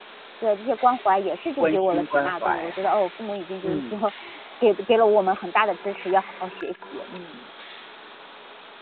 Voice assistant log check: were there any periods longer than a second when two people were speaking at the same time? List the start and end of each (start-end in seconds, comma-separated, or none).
1.6-2.9